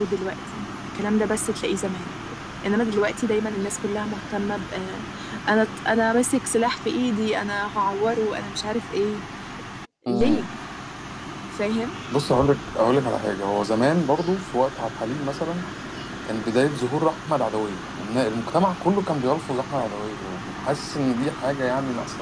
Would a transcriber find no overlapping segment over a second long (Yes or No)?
Yes